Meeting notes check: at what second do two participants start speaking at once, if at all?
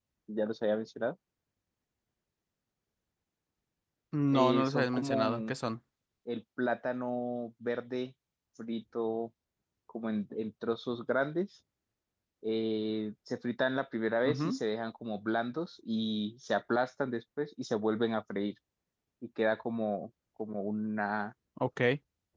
4 s

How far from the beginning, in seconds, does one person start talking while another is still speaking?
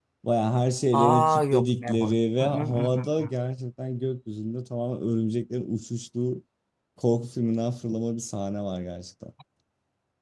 1 s

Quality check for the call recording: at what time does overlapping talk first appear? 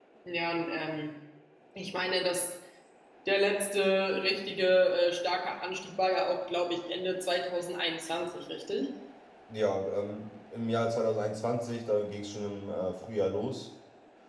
none

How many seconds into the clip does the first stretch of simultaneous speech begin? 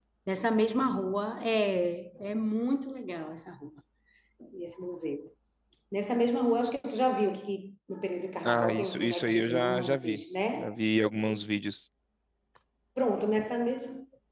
8 s

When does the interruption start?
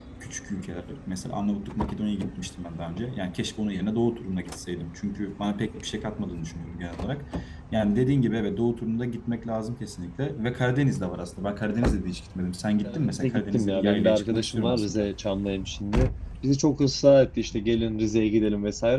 13 s

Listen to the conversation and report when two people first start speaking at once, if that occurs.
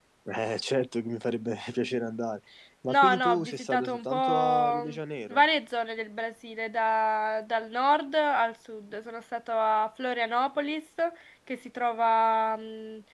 3 s

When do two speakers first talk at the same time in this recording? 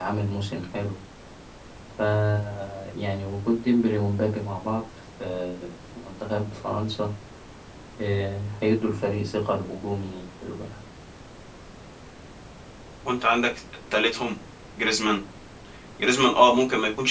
none

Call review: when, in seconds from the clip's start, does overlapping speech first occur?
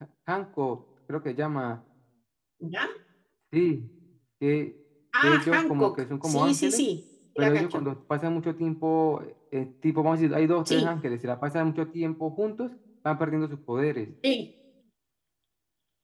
5 s

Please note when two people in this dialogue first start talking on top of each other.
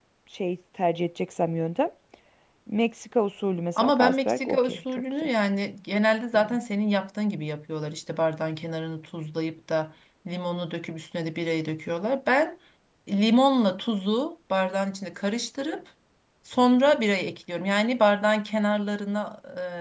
4 s

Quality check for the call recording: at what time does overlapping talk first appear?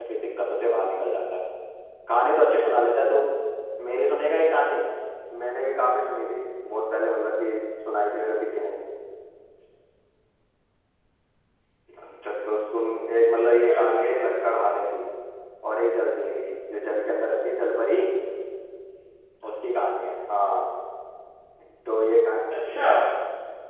13 s

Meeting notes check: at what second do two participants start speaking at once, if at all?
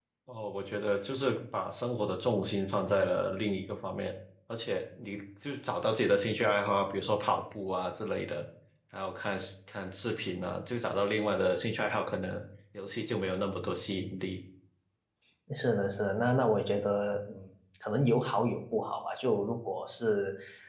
none

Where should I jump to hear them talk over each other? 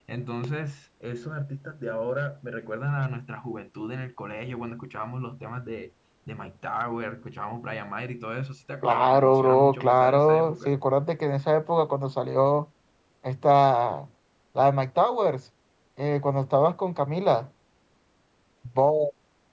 9 s

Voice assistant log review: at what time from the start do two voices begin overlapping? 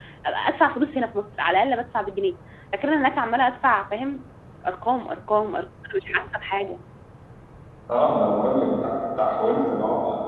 none

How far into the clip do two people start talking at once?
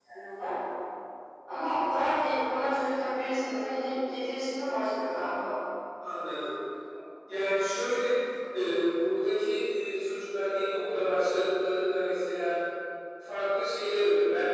none

